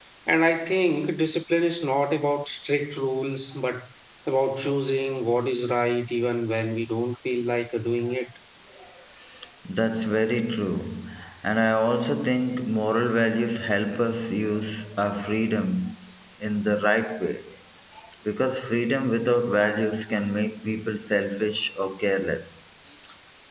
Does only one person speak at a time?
Yes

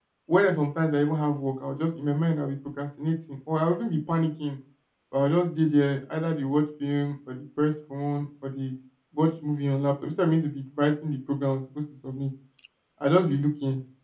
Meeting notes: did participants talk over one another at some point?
No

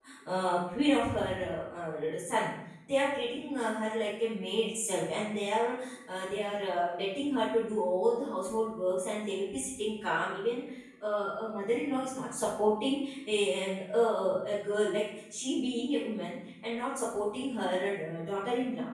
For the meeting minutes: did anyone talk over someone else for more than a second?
No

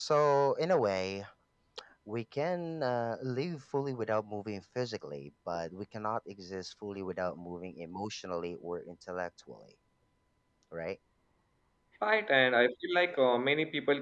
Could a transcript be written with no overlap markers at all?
Yes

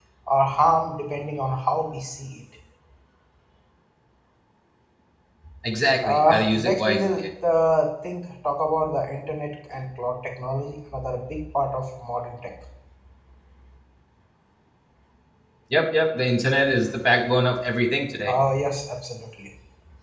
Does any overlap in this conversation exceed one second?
Yes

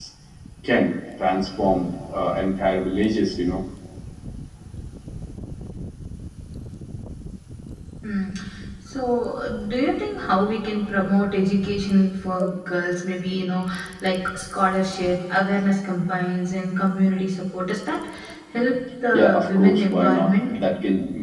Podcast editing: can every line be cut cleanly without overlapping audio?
No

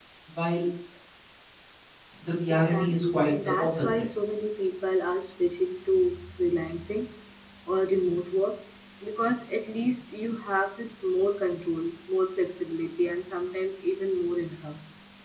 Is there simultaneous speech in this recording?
Yes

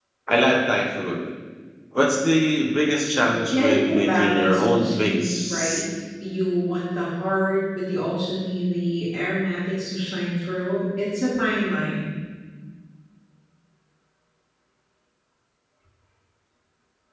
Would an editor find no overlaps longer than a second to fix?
No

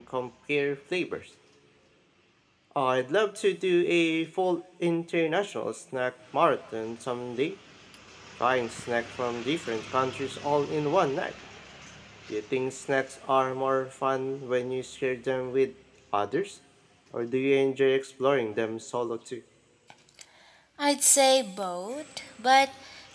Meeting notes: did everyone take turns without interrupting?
Yes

